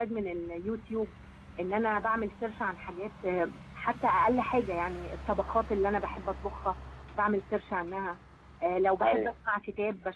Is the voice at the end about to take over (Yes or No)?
No